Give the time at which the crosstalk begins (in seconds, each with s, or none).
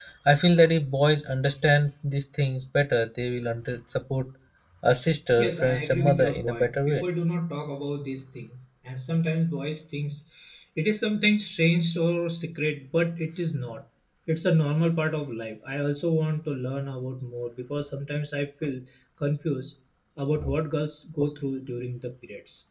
5.4 s